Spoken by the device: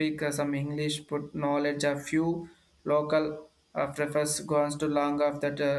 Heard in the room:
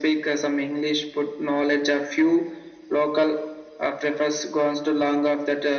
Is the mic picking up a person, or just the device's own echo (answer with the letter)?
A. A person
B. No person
B